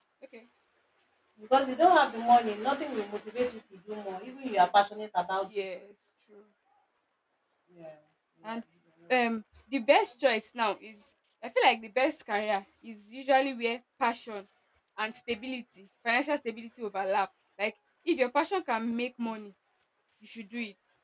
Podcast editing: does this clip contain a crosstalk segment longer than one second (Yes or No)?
No